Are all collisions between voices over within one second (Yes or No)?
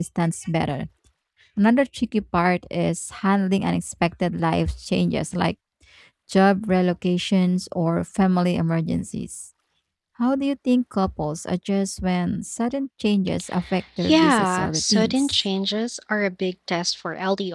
No